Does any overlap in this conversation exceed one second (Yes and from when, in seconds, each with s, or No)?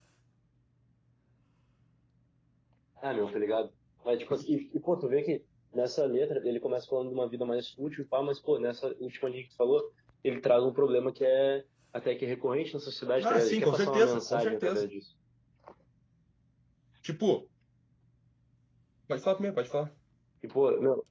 Yes, from 13.2 s